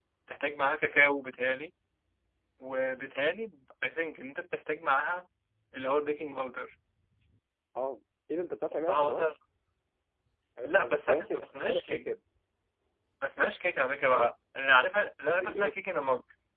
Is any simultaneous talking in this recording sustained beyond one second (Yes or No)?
Yes